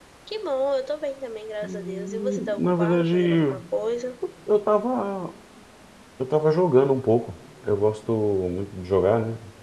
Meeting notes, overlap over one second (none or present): present